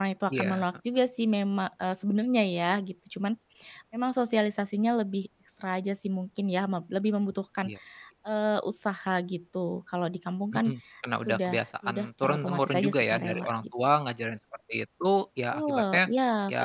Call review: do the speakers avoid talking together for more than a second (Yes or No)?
No